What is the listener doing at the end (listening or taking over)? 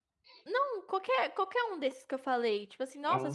listening